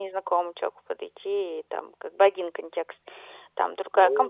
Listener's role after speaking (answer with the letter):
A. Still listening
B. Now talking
B